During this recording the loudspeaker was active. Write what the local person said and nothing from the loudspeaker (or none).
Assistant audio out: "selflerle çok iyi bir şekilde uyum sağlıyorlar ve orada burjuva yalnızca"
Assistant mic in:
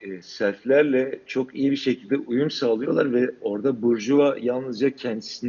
none